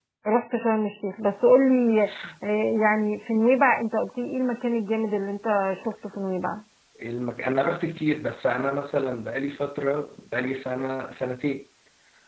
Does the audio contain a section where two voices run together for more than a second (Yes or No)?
No